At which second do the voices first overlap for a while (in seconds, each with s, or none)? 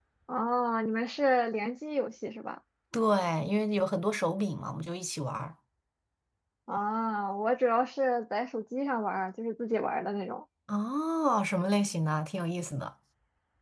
none